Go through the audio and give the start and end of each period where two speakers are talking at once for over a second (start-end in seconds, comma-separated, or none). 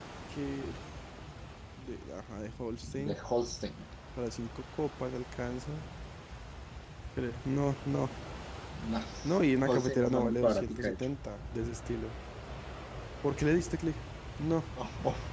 9.7-11.0